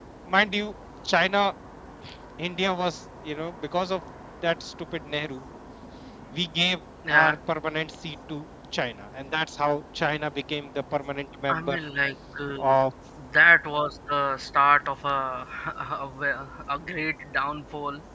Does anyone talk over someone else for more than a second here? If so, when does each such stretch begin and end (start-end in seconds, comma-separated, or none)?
none